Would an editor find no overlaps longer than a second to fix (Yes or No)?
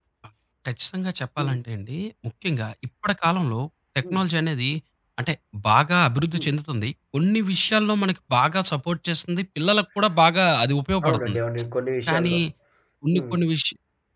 Yes